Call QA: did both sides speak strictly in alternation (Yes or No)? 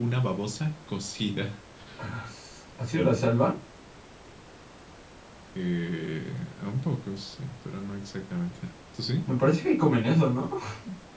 Yes